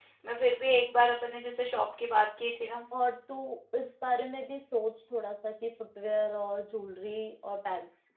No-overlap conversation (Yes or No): Yes